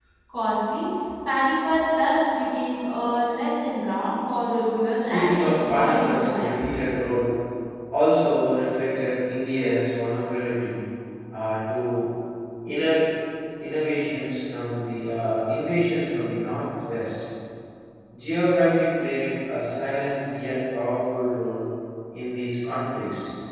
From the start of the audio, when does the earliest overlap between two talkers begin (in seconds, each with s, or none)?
5.1 s